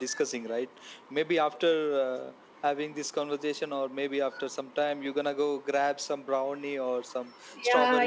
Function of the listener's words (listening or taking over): taking over